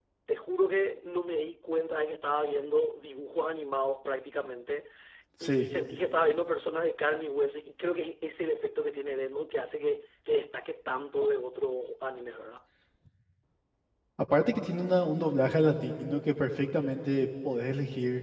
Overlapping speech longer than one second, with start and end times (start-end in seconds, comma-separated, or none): none